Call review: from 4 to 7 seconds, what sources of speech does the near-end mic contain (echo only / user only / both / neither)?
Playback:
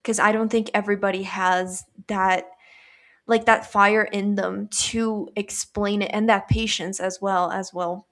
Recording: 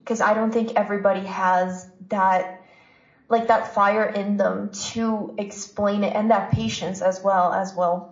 echo only